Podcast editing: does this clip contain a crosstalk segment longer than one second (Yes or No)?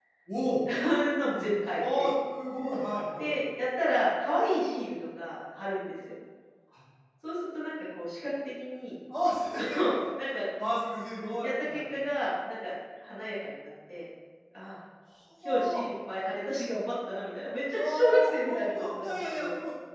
Yes